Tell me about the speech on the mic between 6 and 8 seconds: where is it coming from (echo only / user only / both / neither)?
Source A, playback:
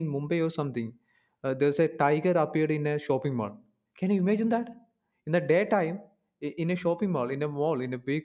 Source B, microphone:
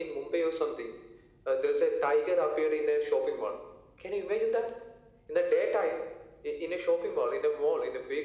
echo only